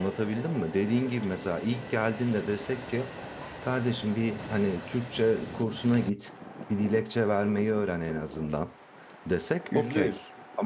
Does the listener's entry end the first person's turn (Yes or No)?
No